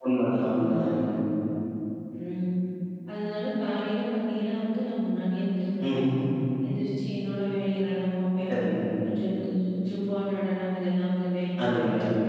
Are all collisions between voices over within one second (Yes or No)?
Yes